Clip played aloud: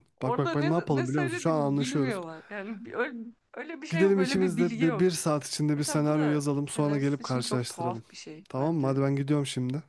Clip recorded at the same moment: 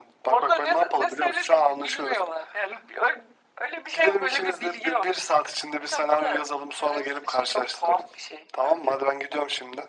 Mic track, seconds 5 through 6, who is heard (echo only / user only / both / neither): echo only